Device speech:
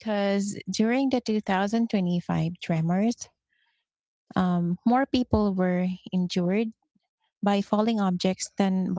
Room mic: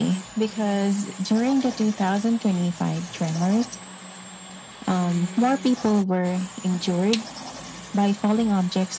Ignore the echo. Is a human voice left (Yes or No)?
No